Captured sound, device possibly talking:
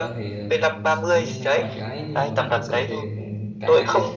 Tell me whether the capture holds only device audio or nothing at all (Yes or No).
No